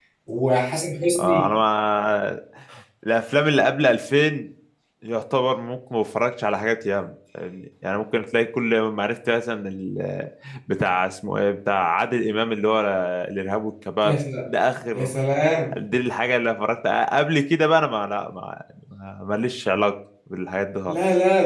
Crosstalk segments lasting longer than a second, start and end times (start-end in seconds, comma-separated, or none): none